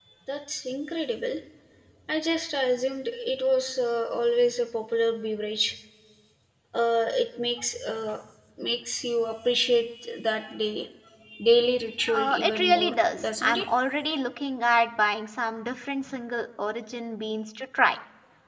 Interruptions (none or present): present